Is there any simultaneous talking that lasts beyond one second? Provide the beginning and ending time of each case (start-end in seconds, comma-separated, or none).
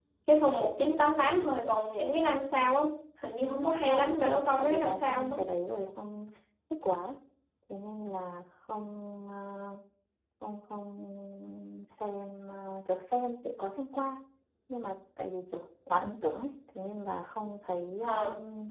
3.4-5.4